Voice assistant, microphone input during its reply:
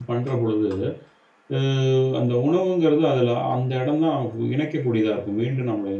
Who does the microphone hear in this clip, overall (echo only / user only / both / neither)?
user only